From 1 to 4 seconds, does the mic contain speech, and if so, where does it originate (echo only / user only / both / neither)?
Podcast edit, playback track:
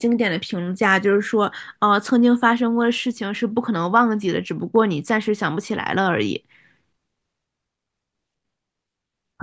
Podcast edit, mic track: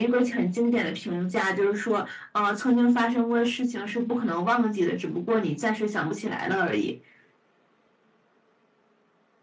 echo only